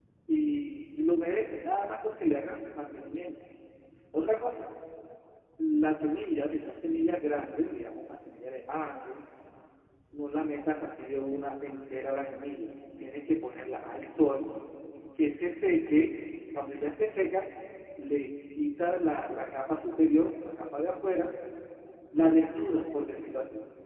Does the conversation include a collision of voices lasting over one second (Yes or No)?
No